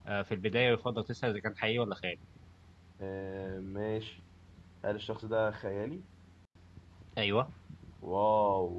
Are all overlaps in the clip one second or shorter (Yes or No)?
Yes